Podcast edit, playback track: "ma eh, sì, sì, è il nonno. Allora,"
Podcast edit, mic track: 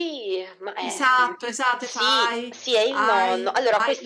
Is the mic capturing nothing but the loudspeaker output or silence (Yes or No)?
No